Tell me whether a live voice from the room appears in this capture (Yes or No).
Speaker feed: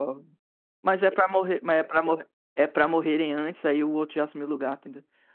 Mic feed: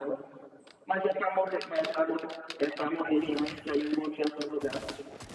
No